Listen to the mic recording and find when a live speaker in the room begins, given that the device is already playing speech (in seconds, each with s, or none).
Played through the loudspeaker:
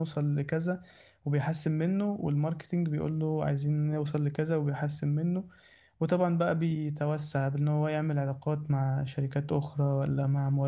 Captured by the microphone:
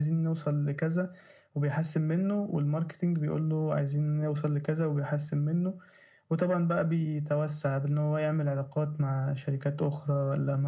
none